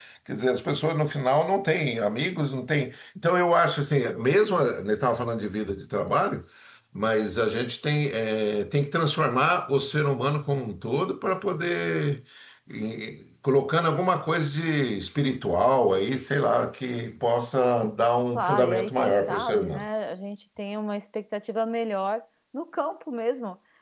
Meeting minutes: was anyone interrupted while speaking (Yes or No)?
Yes